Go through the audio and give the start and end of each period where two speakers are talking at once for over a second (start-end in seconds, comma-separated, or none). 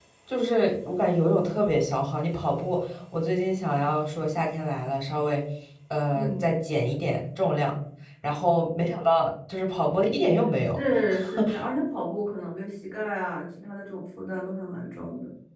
none